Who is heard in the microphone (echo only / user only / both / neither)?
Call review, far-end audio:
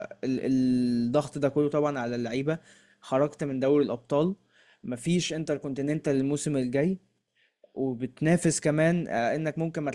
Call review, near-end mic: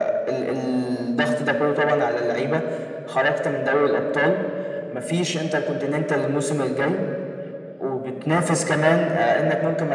echo only